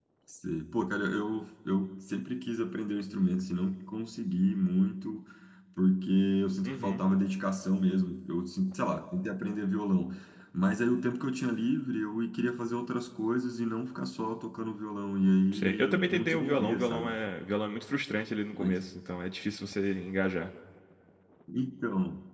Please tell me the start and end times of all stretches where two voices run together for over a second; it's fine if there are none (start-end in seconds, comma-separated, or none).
15.5-17.2